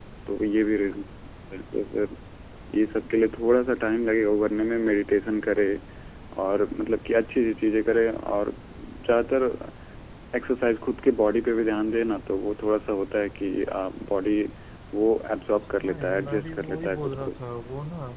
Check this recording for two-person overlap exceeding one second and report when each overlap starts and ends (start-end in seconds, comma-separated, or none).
15.8-17.3